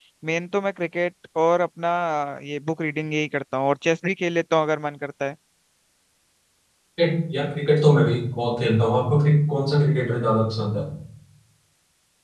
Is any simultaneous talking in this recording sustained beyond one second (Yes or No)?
No